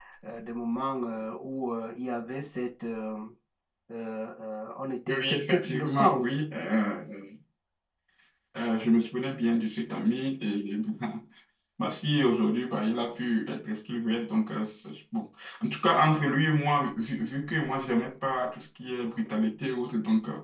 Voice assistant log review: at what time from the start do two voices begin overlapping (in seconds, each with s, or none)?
5.1 s